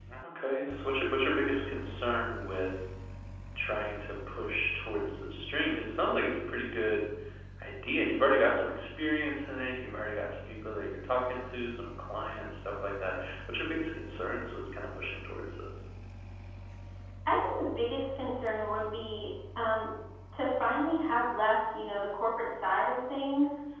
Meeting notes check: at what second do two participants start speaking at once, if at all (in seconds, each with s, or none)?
none